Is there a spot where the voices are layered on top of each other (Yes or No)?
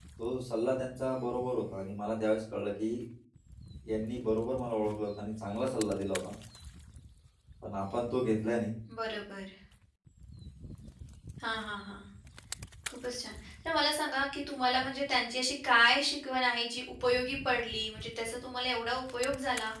No